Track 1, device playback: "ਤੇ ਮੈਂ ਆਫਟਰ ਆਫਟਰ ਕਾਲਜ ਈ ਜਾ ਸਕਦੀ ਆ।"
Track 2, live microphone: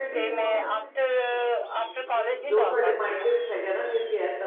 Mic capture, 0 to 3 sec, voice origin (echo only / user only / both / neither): both